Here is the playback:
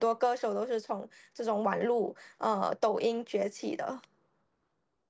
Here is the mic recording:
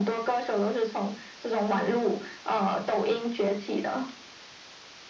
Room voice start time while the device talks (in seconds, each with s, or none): none